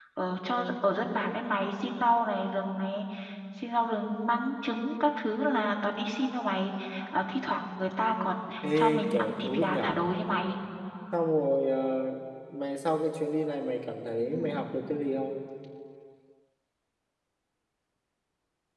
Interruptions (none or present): present